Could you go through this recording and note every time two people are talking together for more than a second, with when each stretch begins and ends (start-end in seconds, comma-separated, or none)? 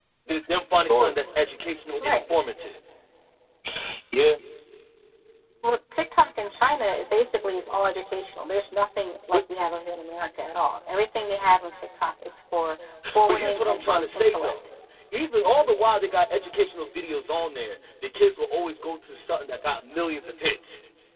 13.3-14.5